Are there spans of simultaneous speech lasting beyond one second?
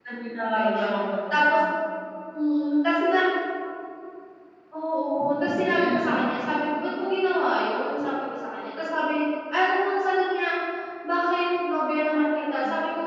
No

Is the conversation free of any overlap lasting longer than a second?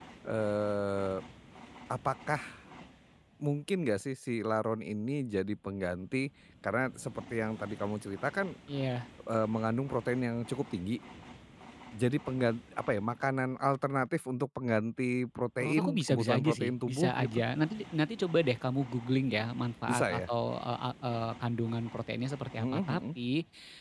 No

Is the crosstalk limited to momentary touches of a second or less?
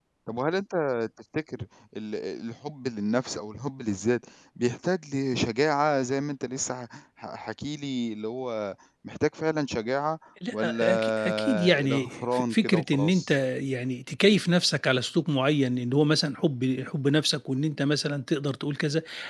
No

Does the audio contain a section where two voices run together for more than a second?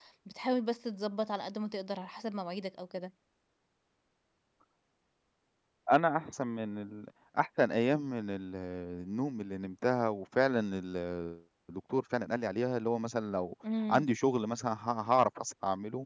No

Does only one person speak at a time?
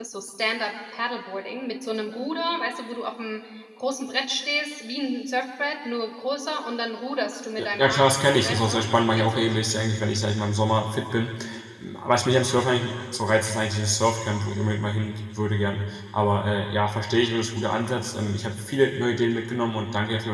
No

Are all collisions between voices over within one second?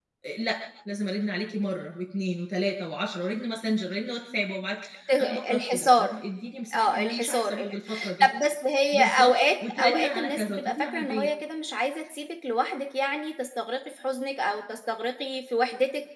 No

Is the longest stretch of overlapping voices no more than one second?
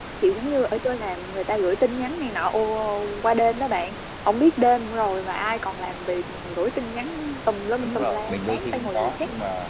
No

